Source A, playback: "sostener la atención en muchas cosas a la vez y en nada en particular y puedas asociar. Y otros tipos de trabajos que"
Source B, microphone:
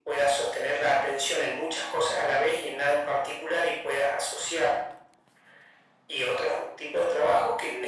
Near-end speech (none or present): none